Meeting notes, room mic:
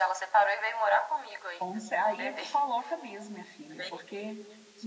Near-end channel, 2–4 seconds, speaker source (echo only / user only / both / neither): both